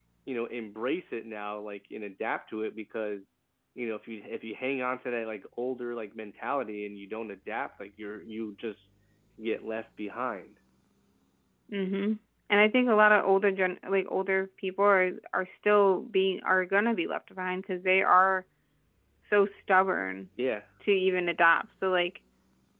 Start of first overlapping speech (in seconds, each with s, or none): none